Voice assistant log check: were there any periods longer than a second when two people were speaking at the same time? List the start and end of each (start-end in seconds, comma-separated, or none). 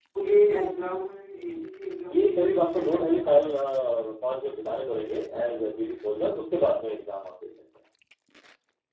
2.1-3.8